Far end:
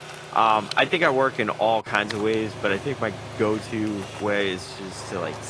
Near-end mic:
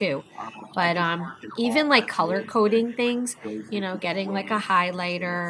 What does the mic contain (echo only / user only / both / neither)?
both